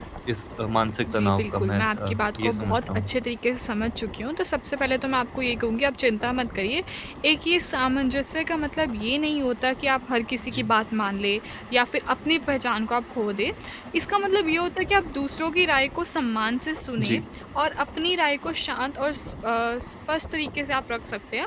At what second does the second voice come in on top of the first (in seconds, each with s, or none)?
1.2 s